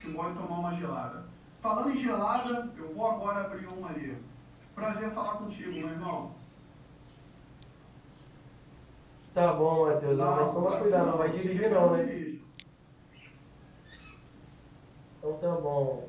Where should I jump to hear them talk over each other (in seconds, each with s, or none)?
10.1 s